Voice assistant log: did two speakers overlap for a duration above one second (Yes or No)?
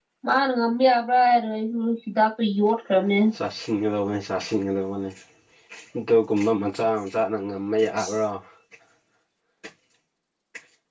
No